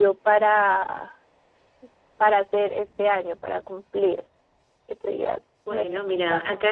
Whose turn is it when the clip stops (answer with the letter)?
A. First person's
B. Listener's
B